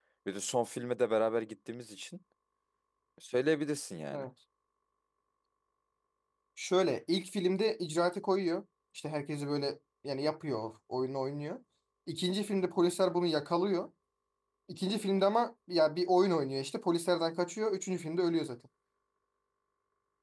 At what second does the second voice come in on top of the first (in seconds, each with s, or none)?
none